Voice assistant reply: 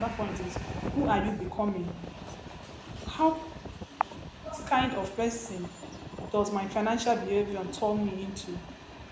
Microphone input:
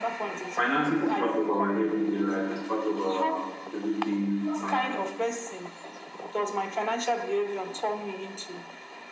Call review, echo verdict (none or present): present